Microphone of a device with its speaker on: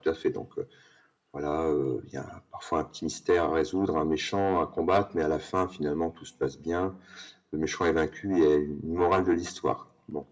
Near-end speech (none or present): none